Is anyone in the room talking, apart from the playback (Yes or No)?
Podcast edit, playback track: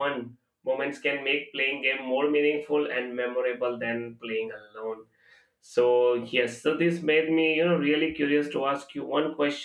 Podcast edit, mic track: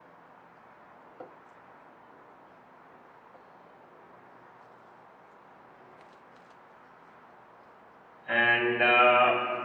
Yes